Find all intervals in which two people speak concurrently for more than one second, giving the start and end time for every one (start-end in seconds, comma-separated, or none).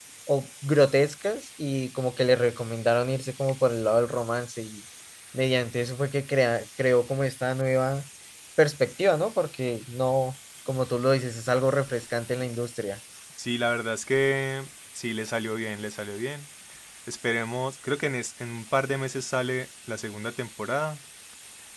none